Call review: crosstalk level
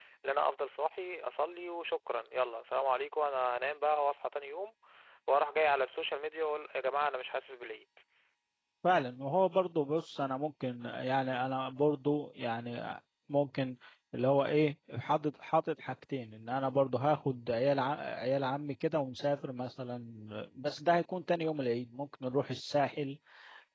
none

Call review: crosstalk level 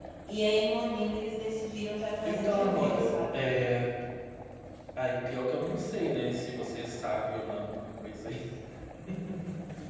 present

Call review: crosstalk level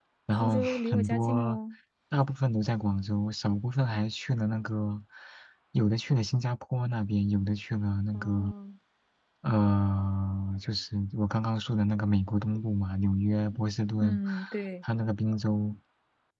present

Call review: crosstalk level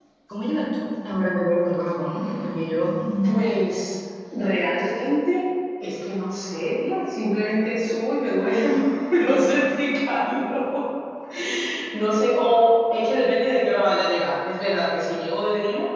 none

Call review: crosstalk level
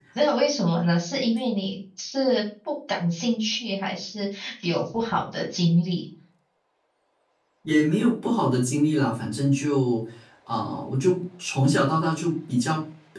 none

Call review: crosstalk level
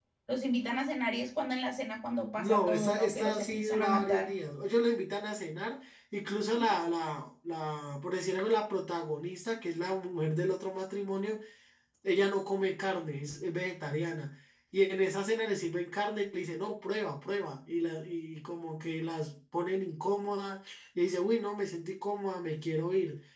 present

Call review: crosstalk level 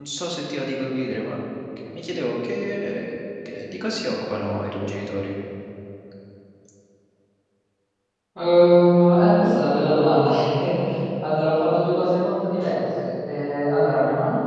none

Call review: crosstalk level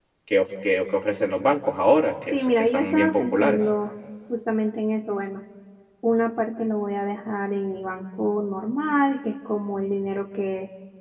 present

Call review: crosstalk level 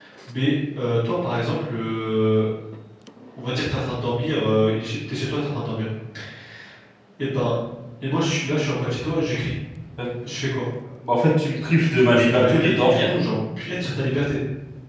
present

